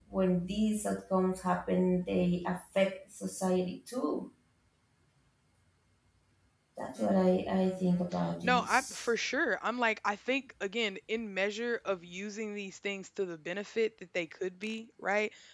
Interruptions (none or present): present